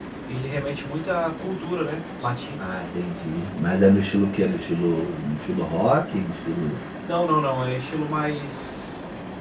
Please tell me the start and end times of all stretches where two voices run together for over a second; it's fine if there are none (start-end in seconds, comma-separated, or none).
none